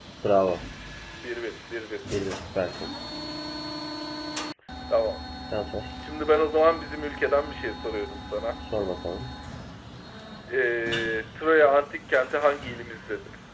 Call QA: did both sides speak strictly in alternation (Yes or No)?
Yes